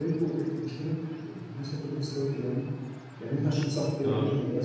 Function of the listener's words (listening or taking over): listening